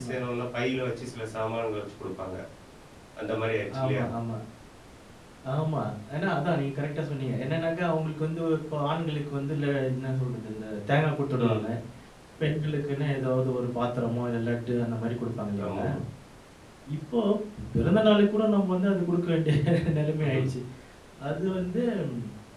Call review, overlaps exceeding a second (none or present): none